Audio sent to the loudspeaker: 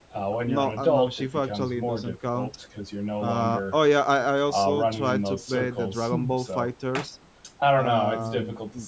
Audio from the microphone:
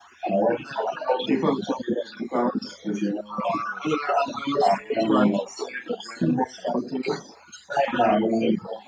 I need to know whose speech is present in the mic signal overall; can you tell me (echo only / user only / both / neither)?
echo only